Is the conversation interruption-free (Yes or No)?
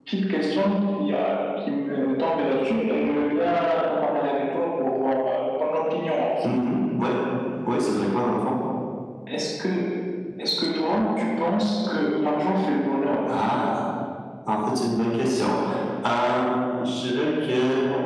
Yes